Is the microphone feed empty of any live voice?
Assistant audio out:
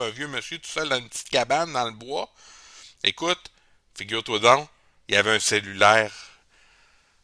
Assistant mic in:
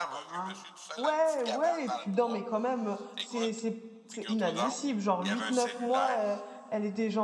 No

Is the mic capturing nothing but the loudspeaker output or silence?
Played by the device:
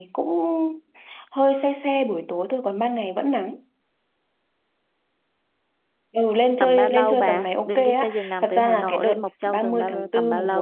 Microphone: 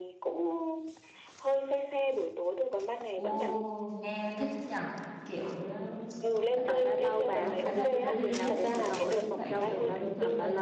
No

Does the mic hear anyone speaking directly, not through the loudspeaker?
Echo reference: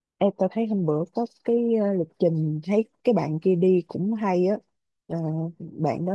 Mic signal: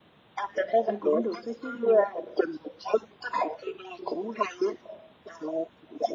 Yes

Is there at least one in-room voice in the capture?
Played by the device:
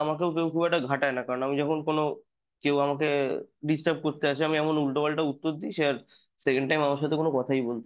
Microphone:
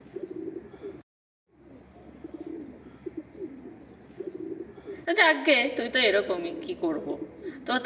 Yes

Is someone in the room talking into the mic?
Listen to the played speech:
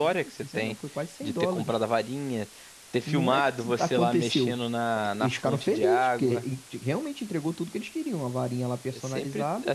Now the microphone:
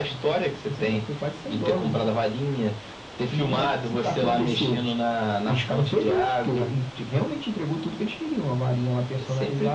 No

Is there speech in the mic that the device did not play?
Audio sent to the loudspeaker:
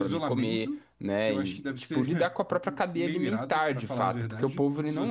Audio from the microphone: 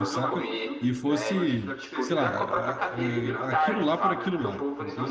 Yes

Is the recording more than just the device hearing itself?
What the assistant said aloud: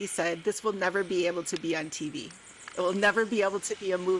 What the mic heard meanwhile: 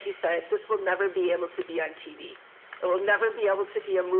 No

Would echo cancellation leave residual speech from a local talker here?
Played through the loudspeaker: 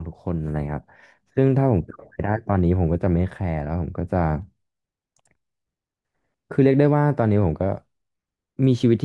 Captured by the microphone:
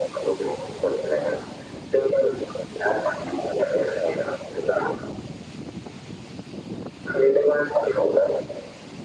No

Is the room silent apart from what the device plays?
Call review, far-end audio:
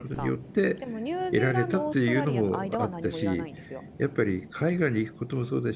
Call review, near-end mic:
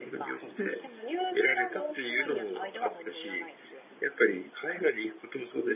No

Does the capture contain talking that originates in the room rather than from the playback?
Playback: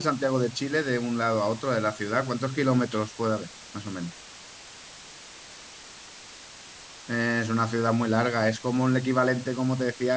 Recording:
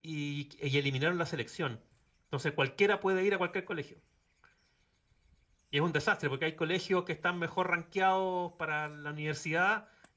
Yes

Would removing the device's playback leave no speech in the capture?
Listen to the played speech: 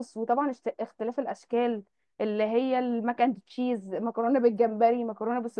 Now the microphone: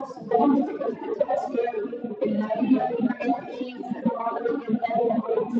Yes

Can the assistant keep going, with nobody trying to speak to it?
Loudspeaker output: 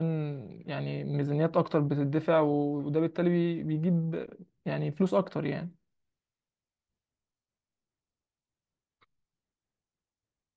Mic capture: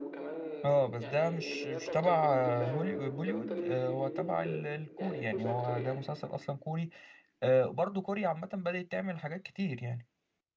No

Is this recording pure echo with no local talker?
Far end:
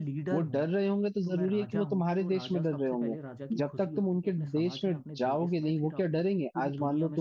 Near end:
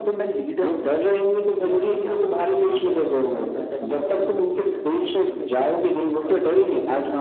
Yes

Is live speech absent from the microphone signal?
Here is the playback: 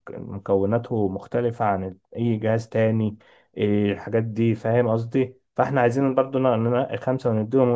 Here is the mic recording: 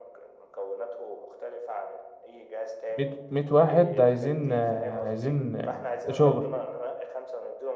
No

